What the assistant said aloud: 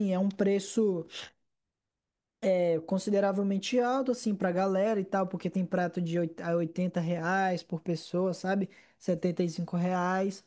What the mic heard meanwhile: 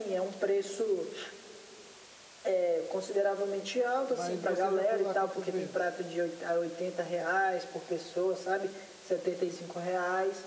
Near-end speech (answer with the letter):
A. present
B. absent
A